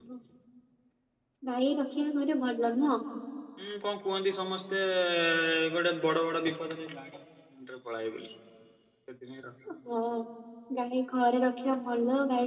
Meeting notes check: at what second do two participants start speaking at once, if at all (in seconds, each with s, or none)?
none